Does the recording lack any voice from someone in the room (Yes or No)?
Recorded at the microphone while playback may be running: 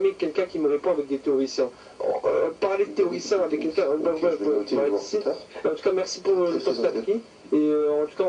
Yes